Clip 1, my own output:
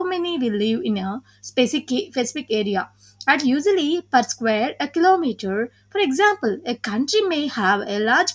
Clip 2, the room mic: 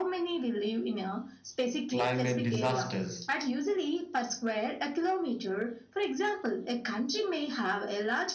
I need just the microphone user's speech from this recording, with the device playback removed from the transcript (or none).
climate disasters